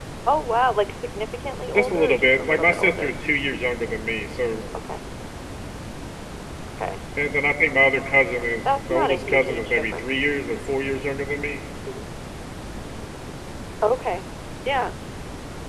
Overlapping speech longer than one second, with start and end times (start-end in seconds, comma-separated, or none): 1.7-3.1, 8.9-10.1